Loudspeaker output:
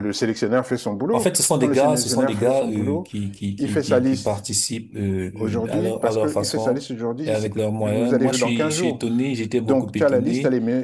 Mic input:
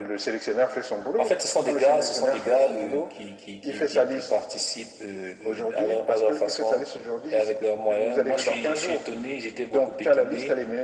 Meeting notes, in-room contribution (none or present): none